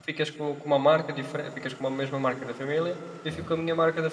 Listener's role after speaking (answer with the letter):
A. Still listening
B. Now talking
A